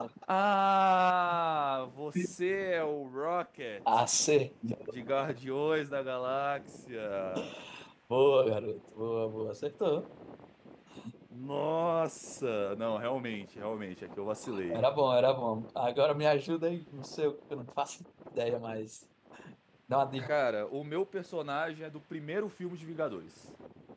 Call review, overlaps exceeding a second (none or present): none